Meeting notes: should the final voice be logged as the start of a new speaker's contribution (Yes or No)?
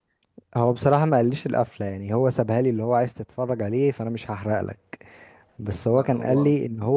No